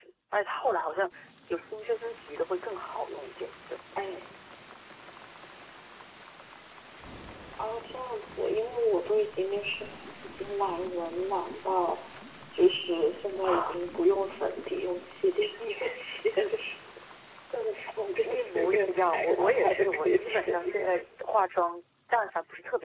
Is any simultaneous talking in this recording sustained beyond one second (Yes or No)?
Yes